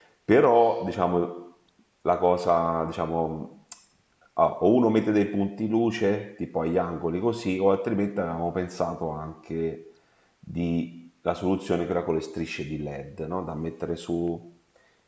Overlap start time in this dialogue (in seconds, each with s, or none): none